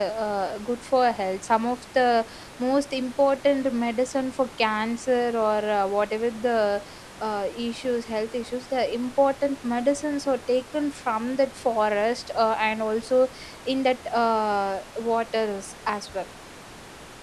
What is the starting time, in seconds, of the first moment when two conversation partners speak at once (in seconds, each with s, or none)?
none